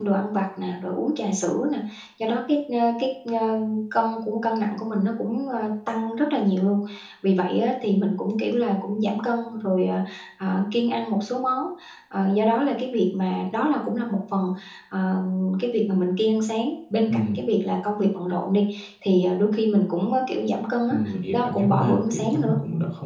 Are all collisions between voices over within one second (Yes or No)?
No